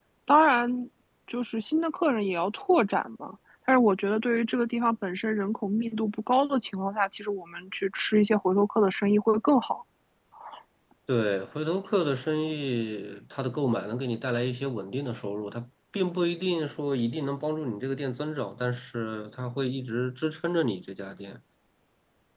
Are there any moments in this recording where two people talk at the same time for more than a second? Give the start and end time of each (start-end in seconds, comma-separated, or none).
none